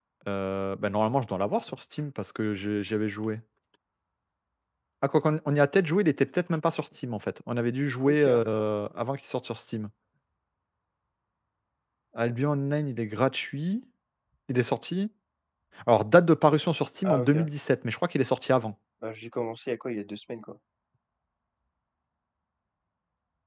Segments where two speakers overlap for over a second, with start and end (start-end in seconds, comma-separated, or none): none